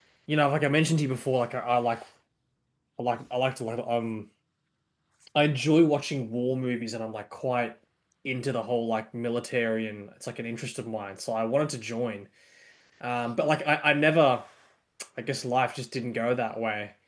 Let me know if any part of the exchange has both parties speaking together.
No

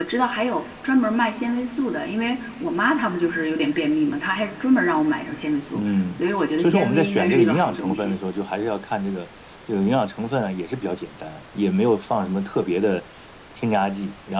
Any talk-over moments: Yes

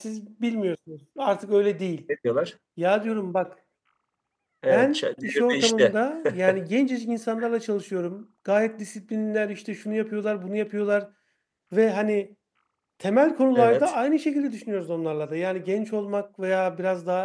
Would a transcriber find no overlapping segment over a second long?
No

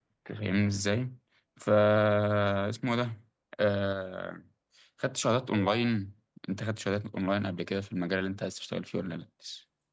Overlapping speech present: No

